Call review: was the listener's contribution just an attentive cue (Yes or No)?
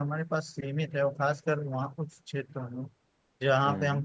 Yes